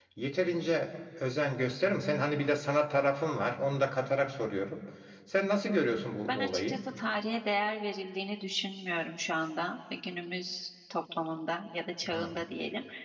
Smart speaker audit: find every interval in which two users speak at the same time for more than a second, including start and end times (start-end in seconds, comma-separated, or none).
none